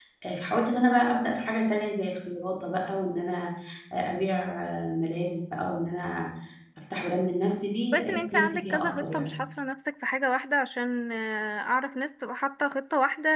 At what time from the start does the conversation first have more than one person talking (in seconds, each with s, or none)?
7.9 s